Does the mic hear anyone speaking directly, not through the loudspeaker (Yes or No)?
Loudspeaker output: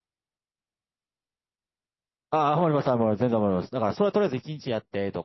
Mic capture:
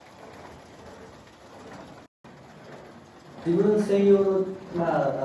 Yes